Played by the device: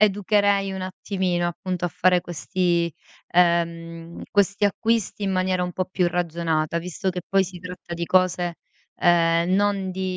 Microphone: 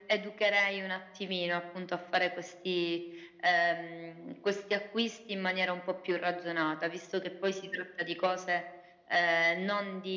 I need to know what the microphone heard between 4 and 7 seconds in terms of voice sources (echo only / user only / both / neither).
echo only